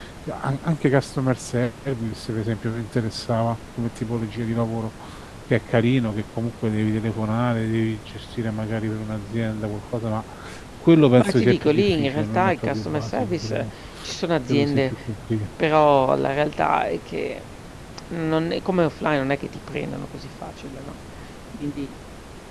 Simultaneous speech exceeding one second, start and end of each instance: 11.2-13.6

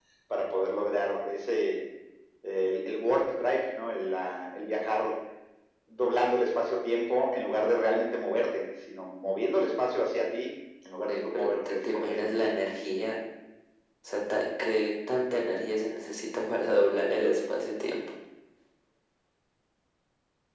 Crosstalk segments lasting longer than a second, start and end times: 11.1-12.3

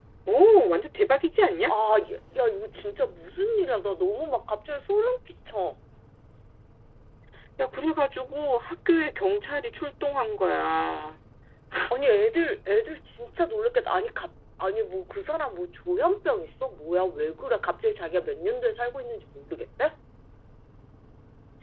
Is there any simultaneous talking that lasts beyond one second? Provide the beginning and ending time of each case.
none

